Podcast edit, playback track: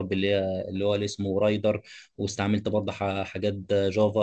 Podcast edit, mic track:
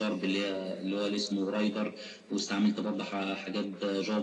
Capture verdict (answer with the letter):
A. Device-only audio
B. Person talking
A